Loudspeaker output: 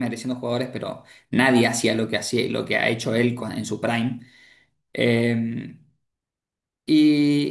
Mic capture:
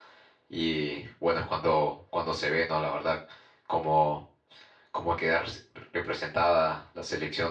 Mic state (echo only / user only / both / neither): user only